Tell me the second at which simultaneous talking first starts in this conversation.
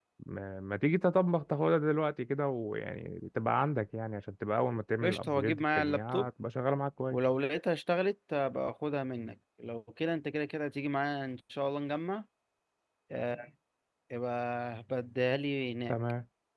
5.0 s

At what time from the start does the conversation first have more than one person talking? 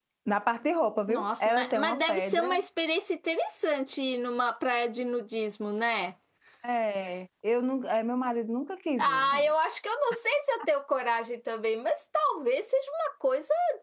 1.1 s

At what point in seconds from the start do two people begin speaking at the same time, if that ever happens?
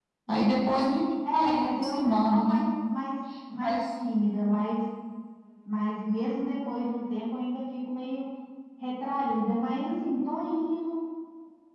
1.3 s

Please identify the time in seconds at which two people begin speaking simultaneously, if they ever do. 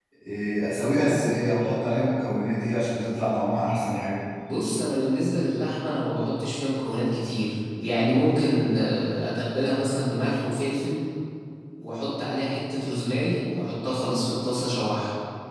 none

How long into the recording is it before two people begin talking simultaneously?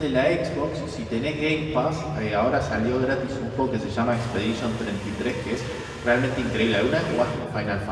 none

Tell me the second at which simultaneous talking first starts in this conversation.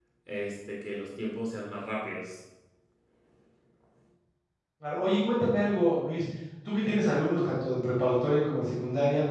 none

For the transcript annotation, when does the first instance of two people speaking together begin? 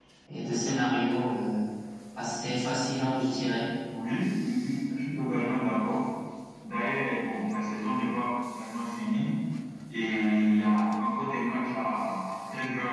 none

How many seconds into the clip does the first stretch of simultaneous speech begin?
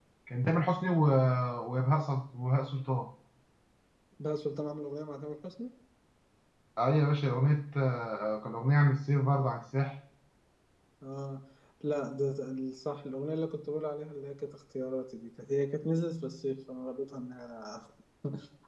none

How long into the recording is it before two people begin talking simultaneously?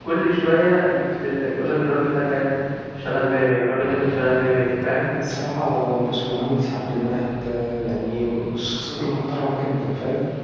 none

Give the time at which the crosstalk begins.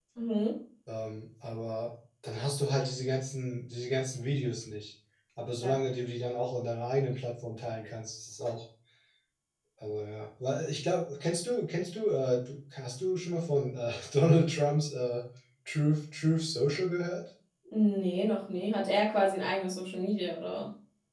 none

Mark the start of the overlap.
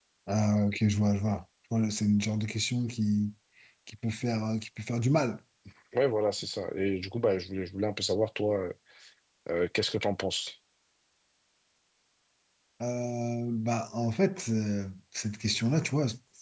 none

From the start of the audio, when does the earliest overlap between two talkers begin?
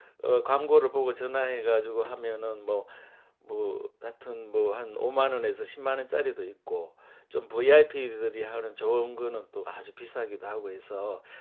none

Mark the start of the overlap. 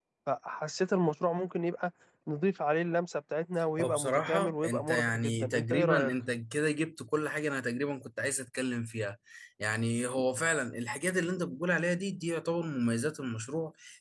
3.8 s

